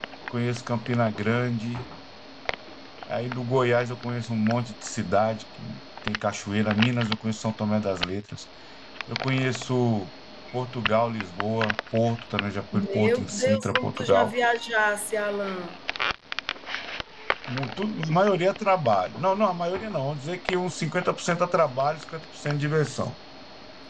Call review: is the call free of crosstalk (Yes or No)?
No